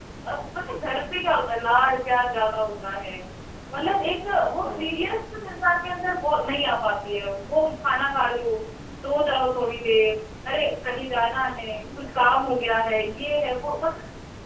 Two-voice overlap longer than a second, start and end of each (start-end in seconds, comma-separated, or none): none